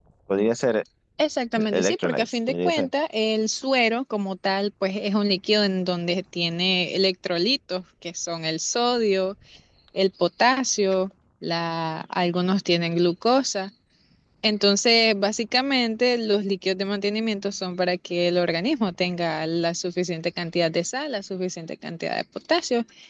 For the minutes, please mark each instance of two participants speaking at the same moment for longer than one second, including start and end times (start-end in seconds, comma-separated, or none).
1.6-2.9